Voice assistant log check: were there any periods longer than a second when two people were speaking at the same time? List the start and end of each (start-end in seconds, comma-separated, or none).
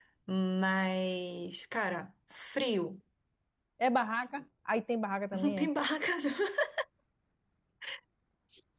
none